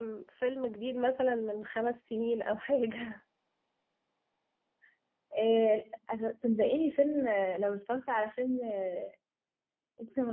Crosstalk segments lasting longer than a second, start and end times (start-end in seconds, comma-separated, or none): none